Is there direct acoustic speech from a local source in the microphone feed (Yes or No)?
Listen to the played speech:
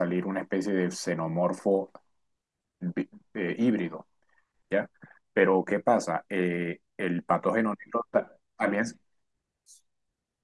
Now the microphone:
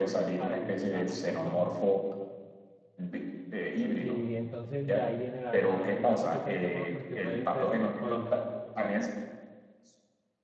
Yes